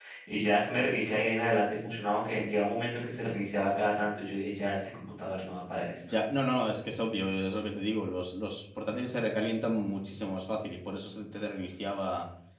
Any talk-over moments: No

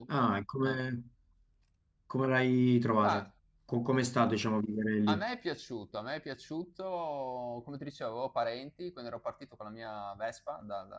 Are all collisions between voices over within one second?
Yes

